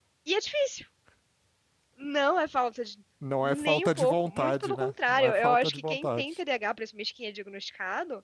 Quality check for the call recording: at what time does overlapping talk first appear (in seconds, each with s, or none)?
3.4 s